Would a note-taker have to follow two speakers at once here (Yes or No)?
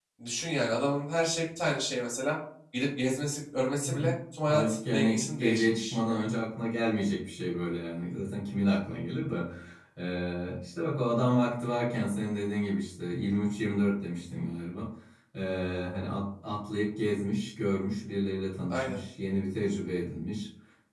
Yes